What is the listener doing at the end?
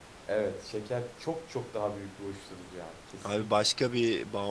taking over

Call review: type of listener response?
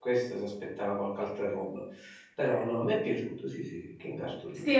taking over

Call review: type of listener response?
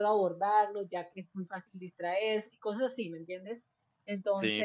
taking over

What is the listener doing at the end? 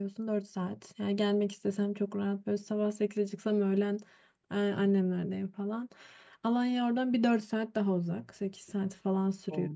listening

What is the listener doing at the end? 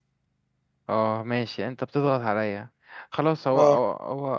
listening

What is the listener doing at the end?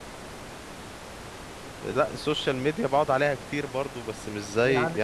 taking over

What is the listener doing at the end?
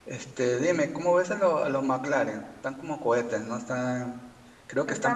taking over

